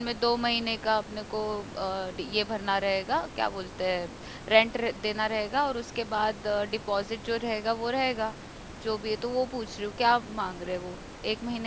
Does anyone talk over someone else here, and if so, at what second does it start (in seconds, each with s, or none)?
none